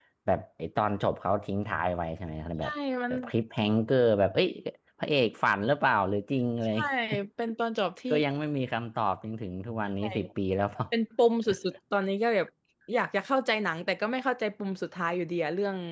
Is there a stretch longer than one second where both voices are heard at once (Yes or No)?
No